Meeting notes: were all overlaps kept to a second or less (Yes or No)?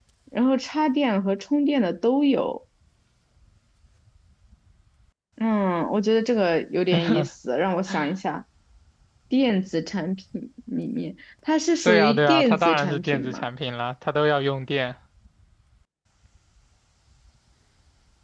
No